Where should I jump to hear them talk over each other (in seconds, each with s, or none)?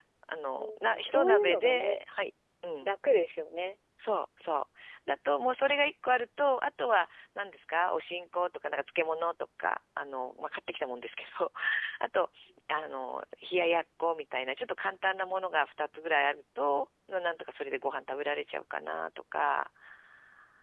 0.6 s